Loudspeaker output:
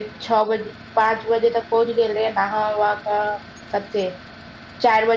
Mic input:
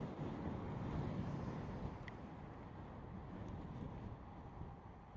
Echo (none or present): none